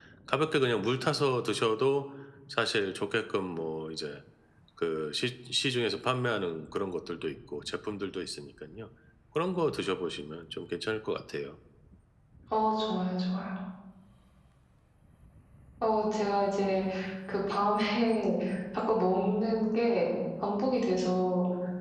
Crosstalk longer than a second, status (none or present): none